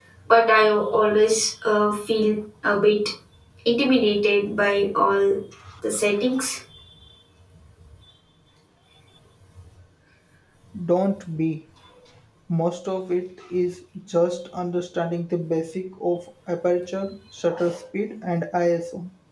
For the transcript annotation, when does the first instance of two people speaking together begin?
none

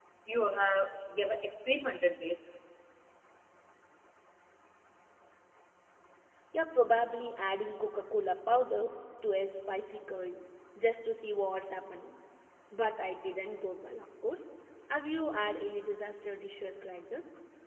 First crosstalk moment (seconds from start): none

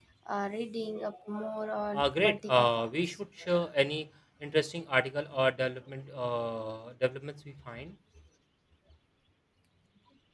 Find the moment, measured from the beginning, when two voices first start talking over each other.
2 s

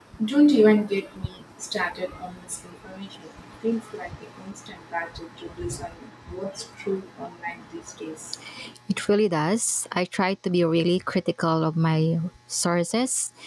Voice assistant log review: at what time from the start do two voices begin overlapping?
none

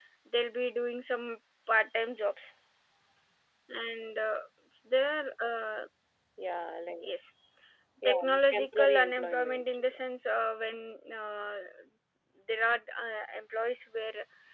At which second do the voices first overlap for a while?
8 s

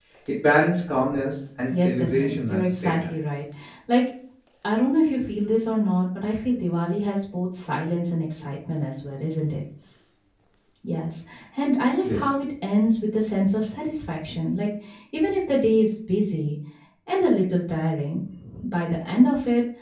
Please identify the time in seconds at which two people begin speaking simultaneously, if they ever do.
2 s

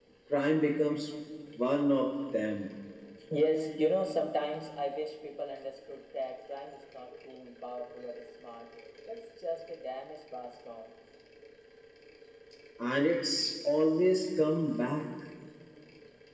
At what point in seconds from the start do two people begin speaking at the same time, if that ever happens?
none

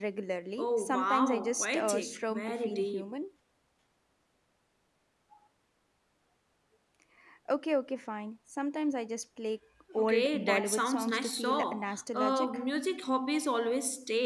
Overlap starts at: 1 s

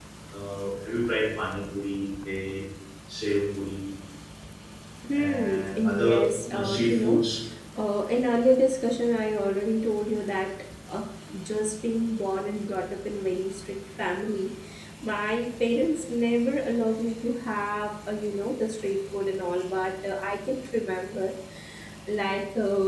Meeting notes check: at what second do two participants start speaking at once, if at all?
5 s

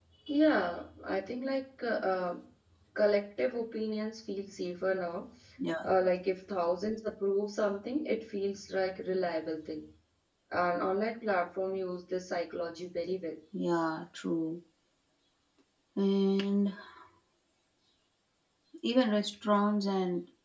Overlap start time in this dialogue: none

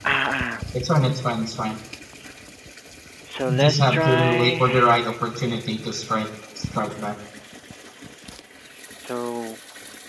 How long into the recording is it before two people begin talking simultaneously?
3 s

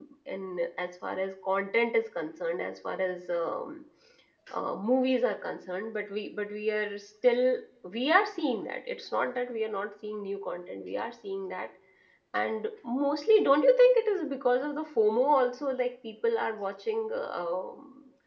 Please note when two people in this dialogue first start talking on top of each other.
none

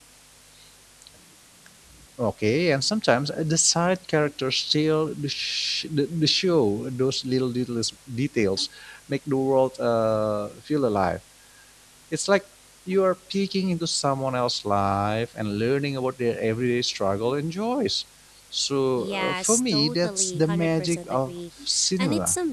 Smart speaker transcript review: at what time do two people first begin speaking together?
19 s

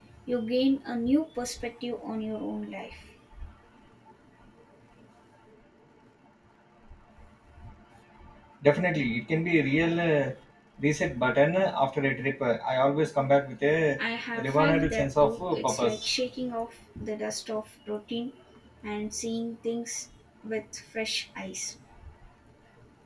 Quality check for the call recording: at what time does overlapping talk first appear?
14 s

